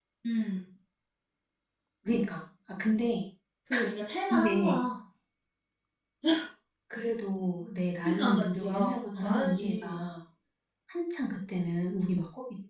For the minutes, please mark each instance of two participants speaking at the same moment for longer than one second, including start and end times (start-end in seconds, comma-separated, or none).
8.0-10.1